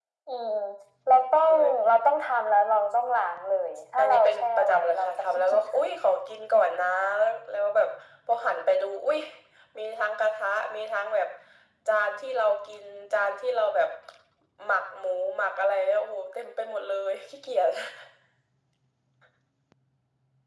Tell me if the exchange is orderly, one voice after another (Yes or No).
No